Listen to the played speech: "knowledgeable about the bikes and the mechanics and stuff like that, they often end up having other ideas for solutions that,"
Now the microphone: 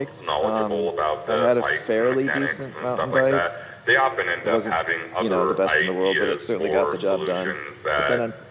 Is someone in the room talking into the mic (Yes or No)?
Yes